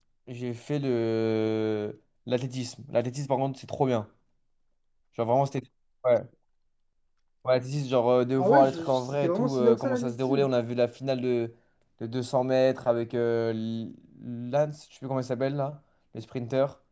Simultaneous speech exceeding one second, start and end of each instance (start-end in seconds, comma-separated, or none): 8.4-10.5